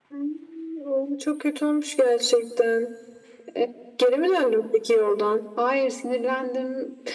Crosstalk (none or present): none